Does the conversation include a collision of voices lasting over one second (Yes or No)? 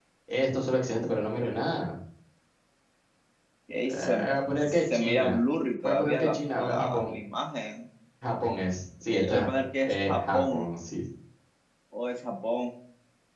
Yes